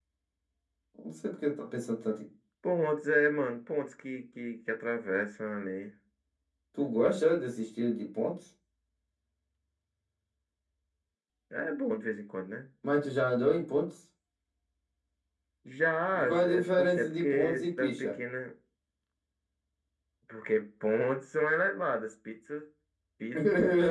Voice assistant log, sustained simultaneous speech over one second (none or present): present